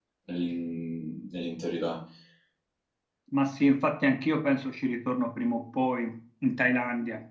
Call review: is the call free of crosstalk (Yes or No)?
Yes